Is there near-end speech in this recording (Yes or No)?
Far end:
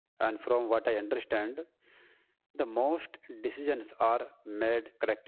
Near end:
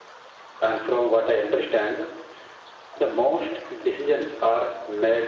No